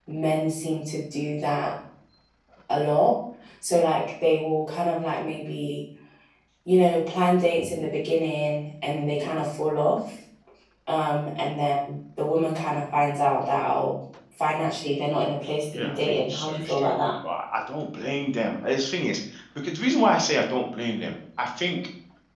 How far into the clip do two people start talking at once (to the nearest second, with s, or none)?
16 s